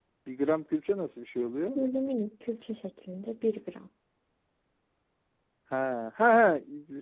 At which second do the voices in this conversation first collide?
none

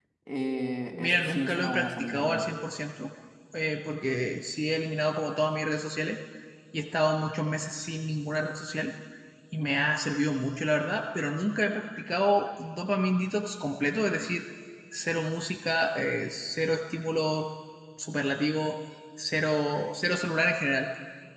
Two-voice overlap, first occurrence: 0.9 s

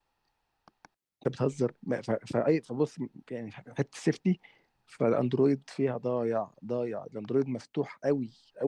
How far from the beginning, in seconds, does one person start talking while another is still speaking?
none

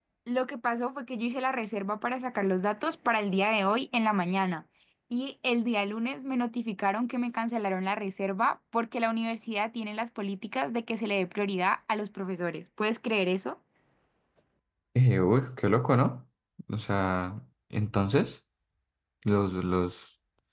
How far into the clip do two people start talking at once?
none

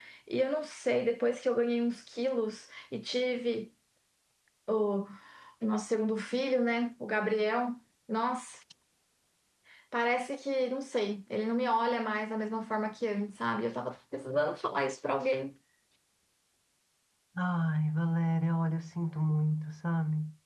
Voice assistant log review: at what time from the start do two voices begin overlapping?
none

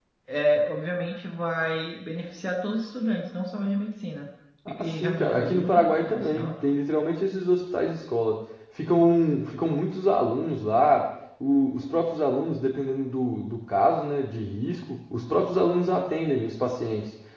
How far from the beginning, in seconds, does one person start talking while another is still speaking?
4.7 s

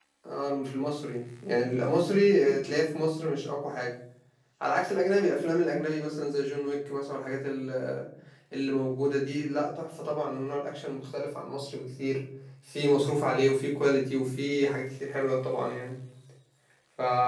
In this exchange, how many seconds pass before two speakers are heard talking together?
none

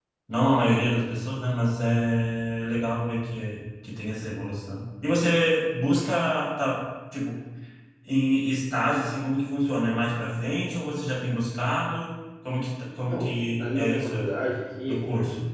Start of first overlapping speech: 12.8 s

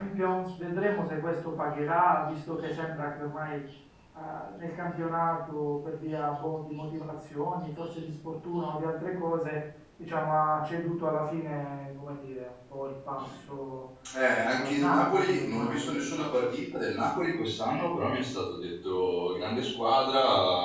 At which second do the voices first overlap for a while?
14.5 s

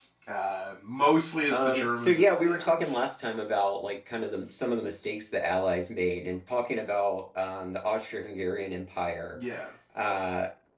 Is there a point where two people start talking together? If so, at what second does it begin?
1.5 s

